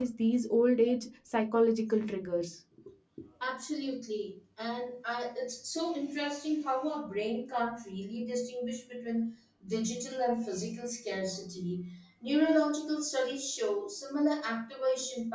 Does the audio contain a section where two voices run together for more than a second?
No

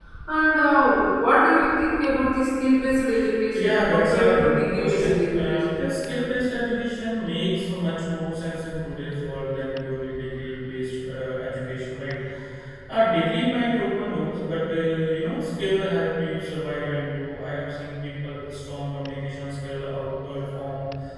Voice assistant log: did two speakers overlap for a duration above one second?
Yes, from 3.5 s

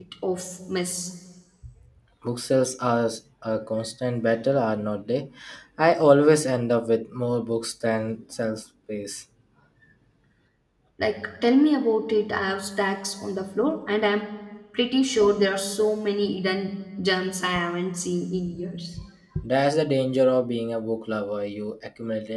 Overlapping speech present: No

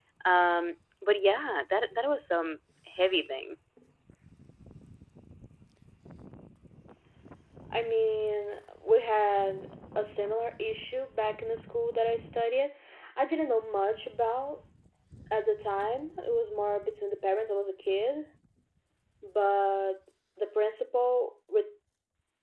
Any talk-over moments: No

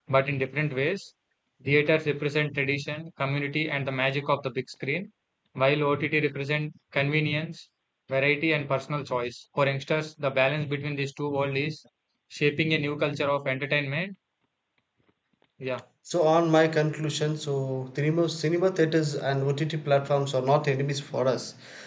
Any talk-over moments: No

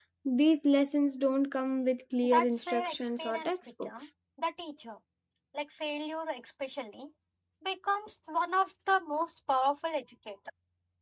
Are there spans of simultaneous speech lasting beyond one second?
Yes, from 2.2 s

